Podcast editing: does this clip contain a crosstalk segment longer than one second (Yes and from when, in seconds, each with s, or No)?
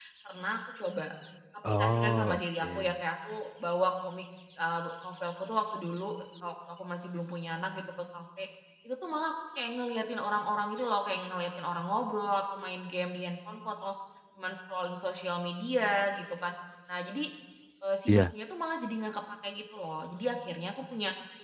Yes, from 1.7 s